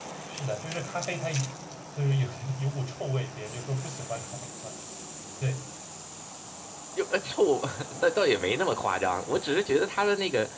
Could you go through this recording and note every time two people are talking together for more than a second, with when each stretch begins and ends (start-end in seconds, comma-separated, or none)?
none